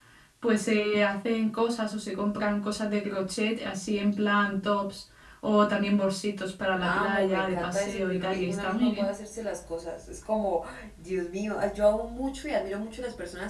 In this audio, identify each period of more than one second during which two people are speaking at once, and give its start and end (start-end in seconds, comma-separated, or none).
6.8-9.1